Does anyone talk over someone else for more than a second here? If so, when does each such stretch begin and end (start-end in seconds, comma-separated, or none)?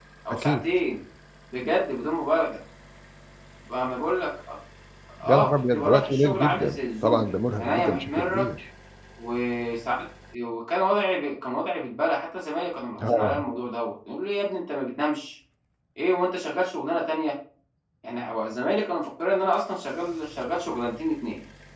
5.3-8.5